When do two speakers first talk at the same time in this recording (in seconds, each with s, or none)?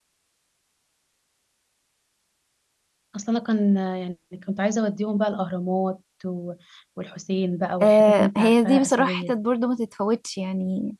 7.8 s